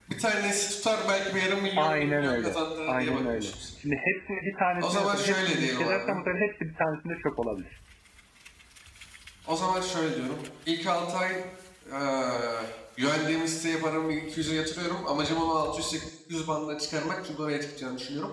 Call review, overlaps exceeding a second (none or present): present